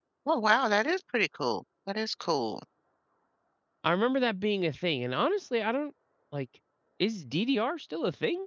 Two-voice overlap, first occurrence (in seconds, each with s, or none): none